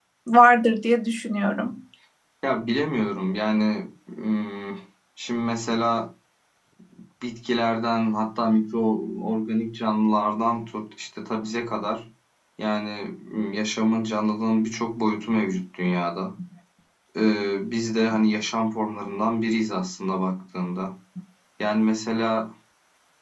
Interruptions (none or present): none